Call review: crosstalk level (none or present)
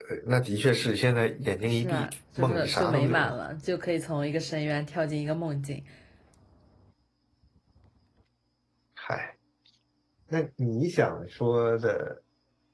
present